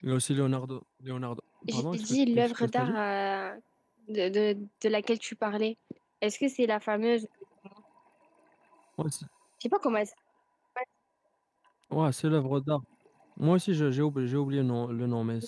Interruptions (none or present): present